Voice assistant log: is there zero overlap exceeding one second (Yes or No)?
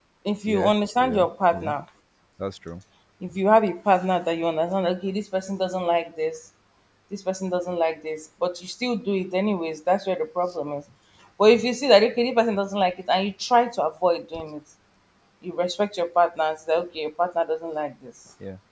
No